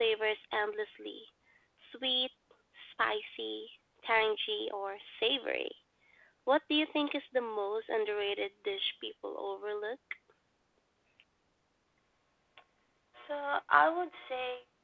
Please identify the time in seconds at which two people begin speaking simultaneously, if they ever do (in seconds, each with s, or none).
none